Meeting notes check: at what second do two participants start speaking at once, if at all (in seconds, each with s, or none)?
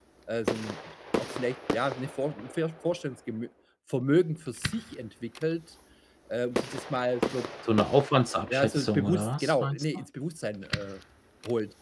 8.5 s